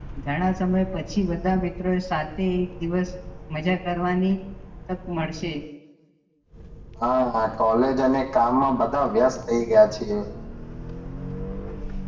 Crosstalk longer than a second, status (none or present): none